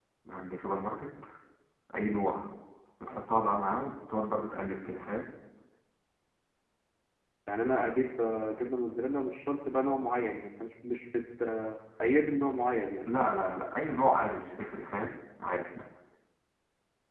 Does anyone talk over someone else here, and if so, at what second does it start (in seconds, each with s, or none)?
none